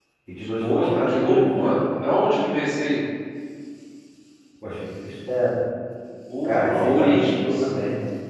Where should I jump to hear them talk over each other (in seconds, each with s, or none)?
0.6 s